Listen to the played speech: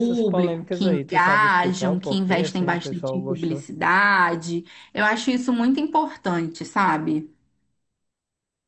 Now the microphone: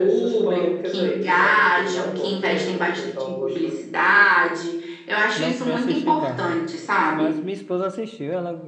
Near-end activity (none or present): present